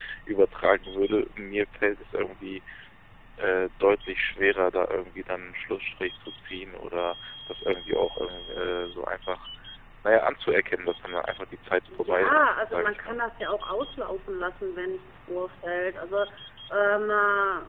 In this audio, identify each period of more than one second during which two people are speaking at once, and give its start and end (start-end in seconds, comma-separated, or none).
11.9-13.2